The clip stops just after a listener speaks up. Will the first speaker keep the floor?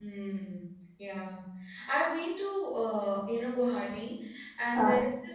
Yes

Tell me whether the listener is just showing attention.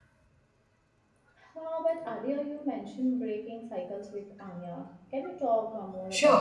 No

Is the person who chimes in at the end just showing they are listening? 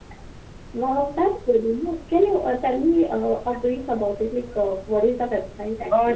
No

